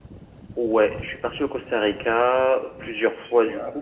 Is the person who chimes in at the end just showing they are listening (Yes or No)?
Yes